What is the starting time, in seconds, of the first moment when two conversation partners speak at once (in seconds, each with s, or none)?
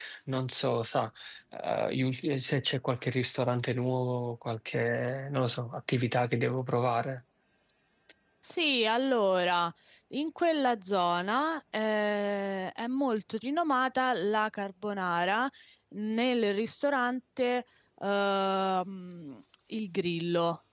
none